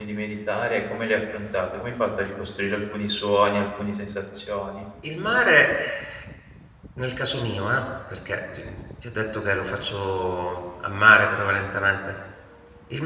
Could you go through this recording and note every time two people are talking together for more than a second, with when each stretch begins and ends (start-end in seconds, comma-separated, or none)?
none